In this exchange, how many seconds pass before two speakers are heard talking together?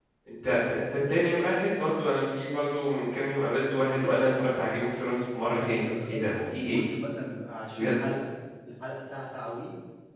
5.6 s

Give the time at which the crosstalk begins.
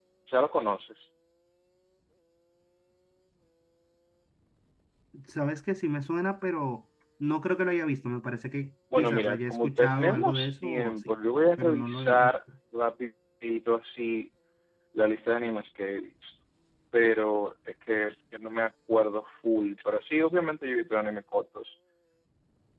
8.9 s

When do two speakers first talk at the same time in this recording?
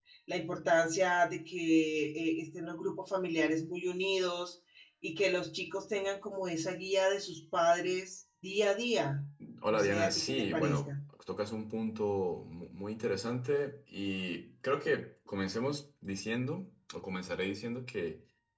9.7 s

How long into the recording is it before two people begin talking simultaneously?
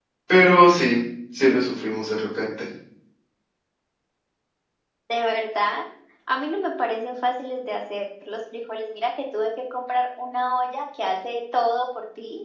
none

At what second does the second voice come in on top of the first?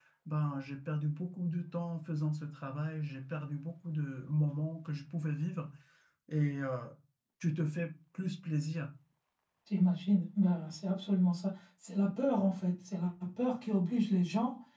none

